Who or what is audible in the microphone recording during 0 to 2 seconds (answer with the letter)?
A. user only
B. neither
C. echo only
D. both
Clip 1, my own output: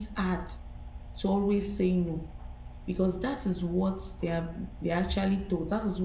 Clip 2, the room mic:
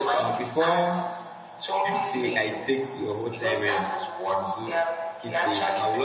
D